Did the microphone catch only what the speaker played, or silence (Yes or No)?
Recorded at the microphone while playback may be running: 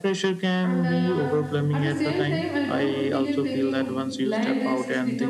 No